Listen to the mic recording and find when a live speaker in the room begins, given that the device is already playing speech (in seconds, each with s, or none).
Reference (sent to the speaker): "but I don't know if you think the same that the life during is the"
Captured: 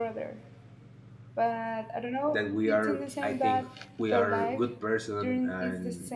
2.2 s